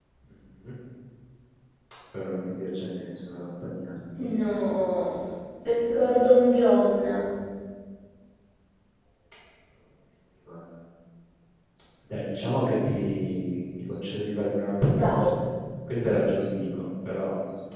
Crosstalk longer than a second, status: none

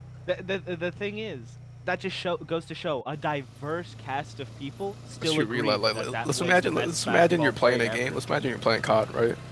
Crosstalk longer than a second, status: present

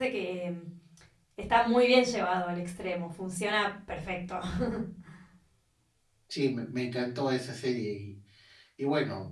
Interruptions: none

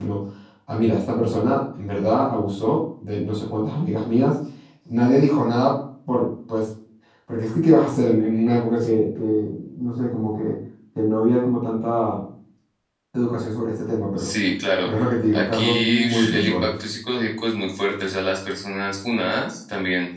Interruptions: present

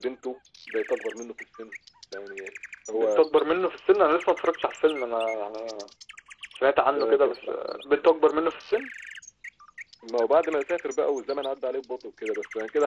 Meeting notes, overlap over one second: present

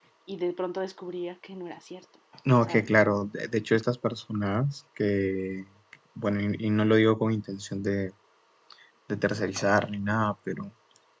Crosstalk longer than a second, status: none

